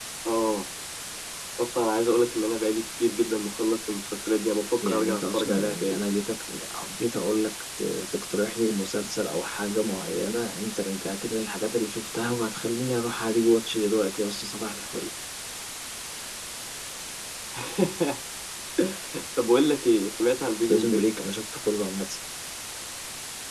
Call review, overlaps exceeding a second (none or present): present